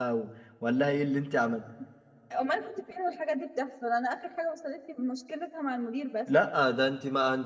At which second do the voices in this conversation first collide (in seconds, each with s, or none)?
none